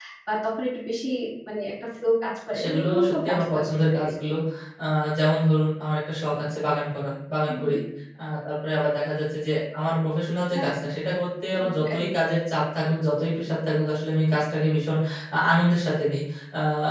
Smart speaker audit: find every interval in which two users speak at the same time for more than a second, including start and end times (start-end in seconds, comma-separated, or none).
2.6-4.2